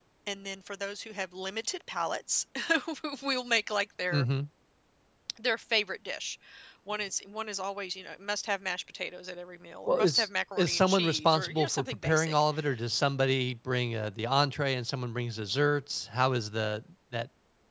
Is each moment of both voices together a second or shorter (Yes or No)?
No